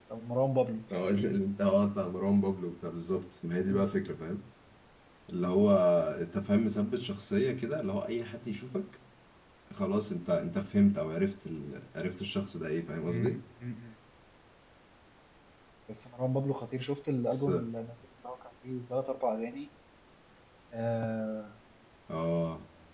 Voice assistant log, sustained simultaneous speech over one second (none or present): none